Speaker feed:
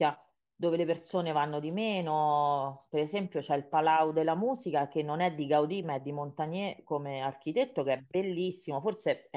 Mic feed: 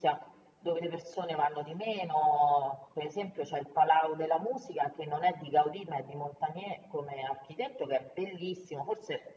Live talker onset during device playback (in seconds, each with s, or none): none